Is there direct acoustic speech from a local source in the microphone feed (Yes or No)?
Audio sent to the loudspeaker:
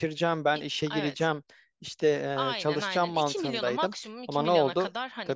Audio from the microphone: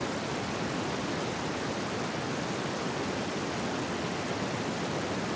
No